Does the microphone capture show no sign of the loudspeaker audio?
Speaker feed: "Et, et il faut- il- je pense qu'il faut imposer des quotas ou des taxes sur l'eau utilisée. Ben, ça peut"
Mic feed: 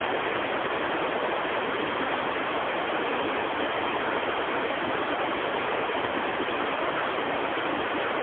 Yes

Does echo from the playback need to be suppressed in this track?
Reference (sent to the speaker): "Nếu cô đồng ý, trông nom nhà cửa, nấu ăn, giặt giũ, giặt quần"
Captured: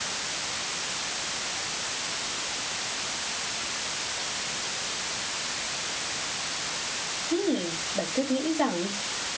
No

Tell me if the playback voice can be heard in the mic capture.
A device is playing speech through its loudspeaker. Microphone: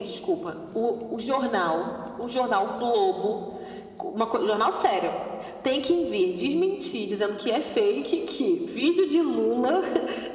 Yes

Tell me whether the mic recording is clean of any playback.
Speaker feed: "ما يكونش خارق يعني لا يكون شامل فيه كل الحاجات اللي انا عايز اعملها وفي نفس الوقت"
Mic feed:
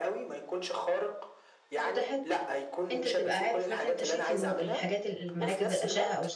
No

